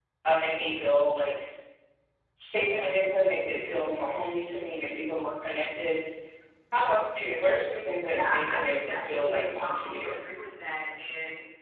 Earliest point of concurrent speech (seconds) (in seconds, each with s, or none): 8.0 s